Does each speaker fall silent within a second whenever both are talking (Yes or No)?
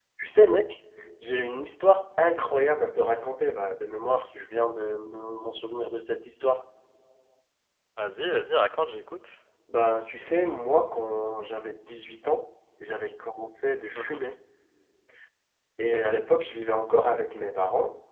Yes